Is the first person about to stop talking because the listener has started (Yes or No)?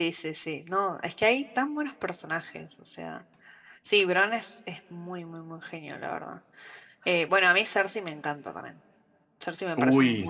Yes